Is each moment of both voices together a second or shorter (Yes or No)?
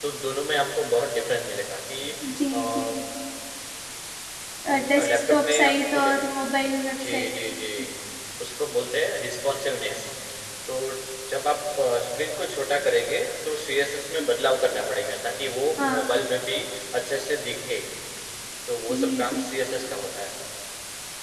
No